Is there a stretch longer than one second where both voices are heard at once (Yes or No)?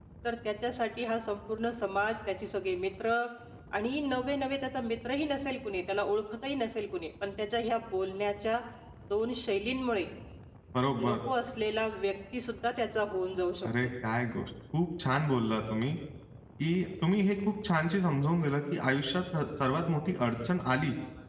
No